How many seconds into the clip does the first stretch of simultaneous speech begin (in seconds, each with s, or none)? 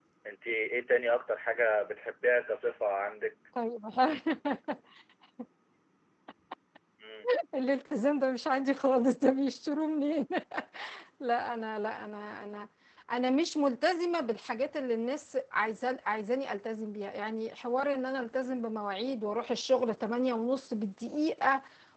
none